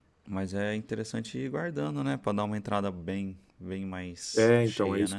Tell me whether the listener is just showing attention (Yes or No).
No